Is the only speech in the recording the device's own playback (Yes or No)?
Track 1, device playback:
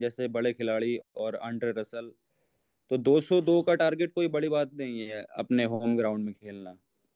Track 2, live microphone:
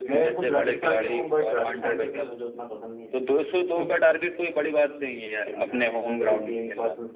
No